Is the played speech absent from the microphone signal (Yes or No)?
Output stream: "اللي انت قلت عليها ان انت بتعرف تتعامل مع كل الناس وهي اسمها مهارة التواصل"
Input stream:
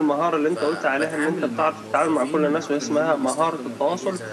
No